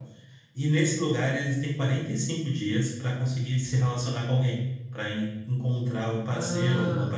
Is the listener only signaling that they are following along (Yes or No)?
No